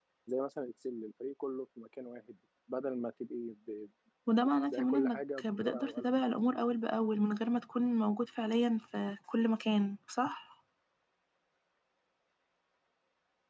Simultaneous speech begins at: 4.7 s

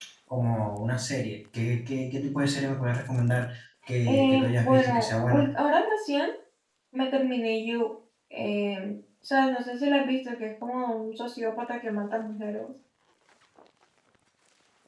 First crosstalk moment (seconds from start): 4.0 s

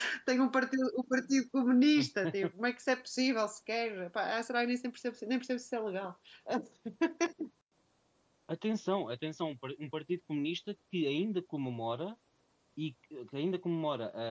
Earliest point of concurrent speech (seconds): none

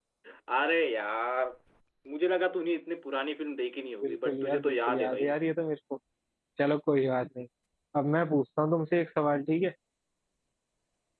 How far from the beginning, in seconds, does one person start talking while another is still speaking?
4.0 s

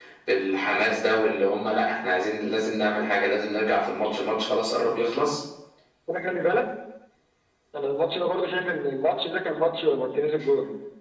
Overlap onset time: none

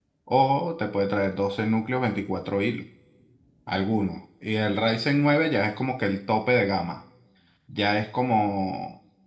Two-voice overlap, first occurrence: none

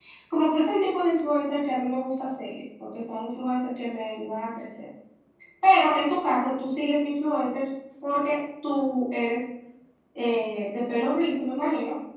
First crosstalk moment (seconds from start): none

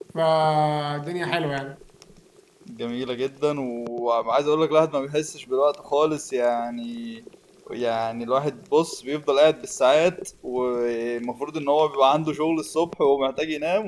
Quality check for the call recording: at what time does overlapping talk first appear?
none

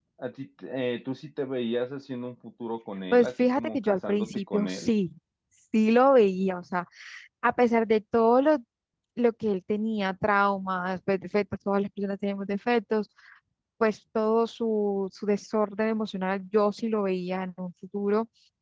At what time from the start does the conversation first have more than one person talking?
3.1 s

